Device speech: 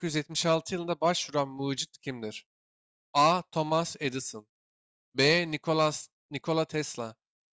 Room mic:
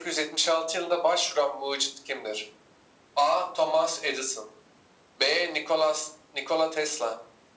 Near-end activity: none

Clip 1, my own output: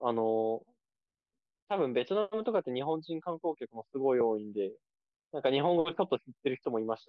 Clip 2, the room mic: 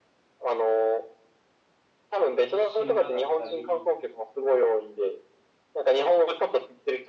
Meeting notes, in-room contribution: present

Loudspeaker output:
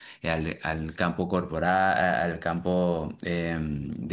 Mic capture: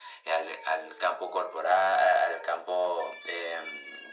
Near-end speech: none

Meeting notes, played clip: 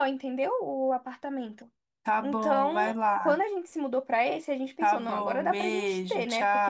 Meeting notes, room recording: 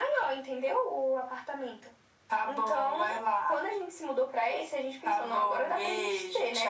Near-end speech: none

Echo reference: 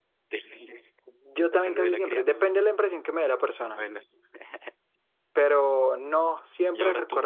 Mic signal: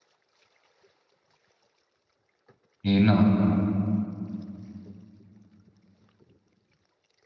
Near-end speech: present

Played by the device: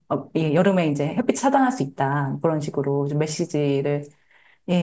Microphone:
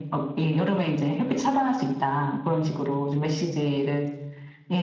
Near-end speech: none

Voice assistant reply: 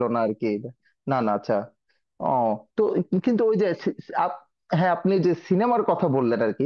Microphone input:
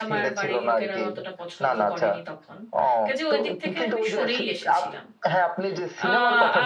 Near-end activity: present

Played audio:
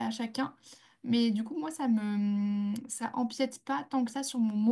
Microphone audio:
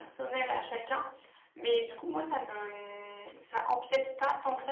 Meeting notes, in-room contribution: none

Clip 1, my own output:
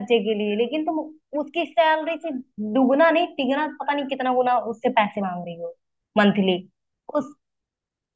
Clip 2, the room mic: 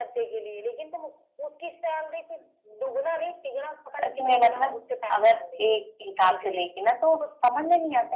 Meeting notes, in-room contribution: present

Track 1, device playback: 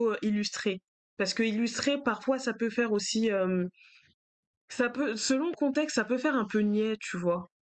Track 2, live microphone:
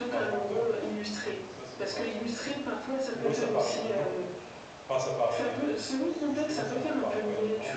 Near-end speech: present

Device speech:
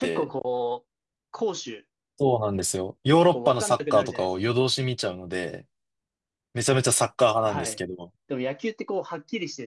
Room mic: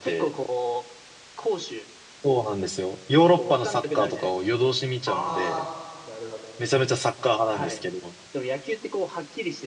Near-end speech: present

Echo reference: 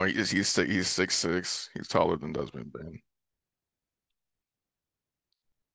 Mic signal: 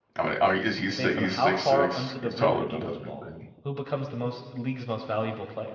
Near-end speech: present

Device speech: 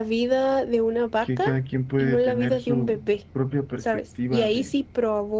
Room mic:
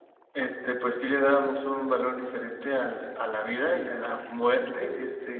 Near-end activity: present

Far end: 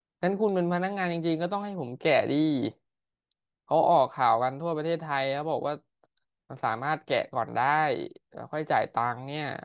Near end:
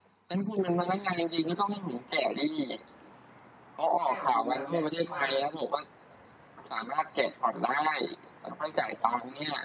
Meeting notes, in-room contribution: present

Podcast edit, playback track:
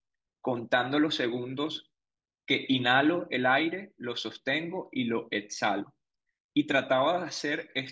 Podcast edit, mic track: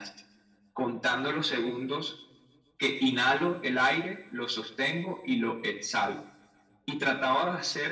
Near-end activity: none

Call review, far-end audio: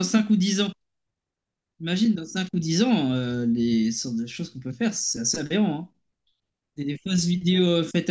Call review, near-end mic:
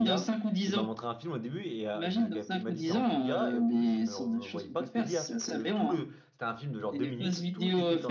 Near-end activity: present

